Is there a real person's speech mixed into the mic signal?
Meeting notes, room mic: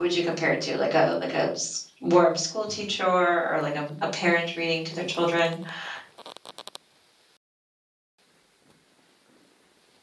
Yes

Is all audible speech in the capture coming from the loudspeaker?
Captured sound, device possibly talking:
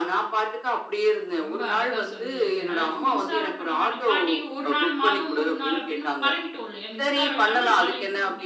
No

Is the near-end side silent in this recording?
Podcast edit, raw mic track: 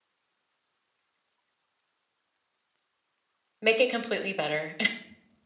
No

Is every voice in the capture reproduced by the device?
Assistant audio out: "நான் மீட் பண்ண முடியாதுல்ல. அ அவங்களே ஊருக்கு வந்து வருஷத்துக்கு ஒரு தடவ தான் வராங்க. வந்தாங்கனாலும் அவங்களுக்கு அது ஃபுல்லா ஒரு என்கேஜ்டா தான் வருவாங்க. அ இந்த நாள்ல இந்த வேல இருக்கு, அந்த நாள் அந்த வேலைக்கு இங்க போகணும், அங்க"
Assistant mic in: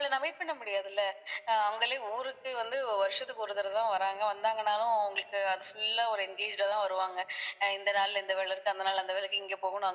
Yes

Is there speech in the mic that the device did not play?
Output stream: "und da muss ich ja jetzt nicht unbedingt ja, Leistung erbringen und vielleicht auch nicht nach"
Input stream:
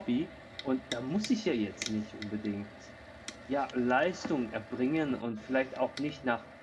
No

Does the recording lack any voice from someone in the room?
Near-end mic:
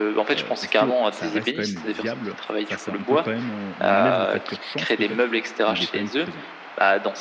No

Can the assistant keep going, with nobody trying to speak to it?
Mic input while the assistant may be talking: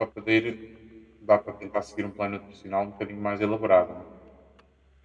No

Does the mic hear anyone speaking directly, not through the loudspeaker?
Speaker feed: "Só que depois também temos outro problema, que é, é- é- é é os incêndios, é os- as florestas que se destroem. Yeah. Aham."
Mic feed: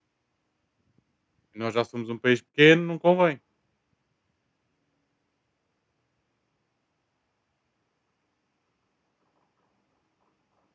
Yes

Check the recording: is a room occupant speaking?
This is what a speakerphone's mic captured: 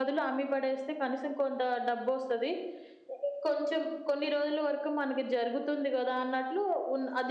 No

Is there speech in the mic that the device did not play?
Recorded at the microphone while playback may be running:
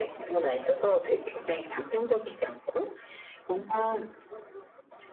No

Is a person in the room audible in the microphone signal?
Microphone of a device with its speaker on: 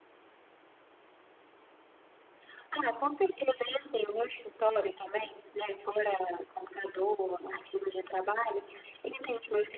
No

